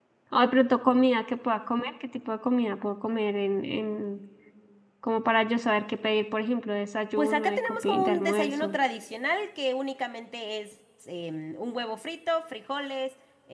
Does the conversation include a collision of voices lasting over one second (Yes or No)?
Yes